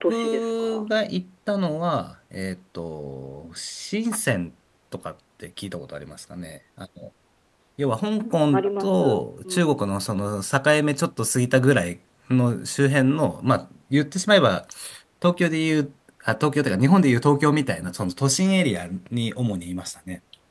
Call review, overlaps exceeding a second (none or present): present